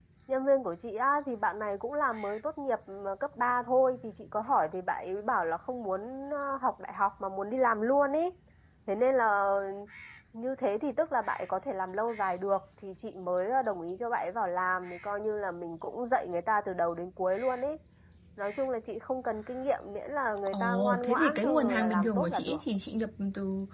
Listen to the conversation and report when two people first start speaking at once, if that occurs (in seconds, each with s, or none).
20.5 s